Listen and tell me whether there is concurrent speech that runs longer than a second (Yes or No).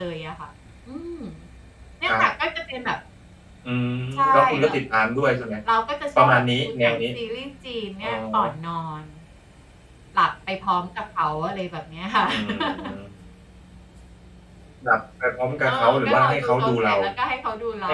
Yes